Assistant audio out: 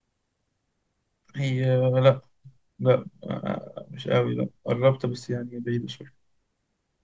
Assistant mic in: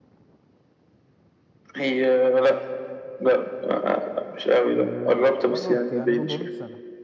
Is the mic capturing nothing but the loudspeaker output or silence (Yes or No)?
No